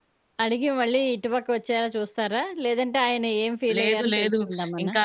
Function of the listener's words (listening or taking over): taking over